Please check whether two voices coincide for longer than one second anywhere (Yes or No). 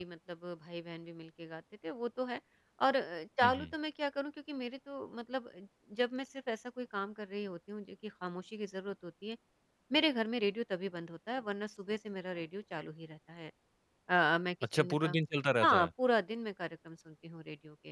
No